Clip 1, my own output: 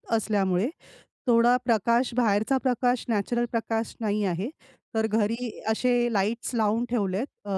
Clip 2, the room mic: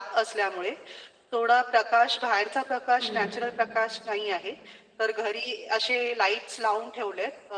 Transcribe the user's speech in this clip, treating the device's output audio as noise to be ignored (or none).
अरे वाह!